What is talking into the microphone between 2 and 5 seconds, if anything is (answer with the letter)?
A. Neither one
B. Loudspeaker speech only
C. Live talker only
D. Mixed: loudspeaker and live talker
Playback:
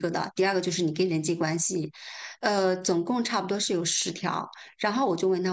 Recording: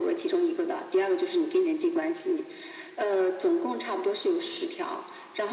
B